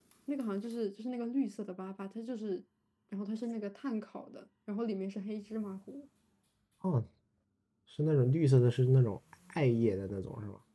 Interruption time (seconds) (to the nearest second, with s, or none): none